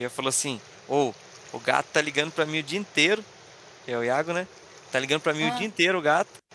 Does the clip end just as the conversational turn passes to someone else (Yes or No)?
No